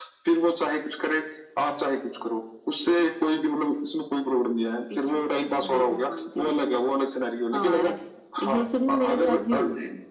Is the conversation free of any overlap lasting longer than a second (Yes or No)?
No